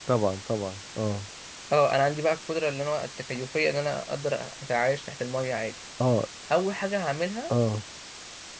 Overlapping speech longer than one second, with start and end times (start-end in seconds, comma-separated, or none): none